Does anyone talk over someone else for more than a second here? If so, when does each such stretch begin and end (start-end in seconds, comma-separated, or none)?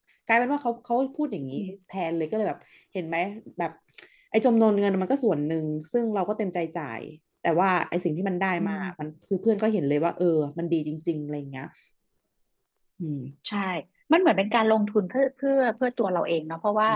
none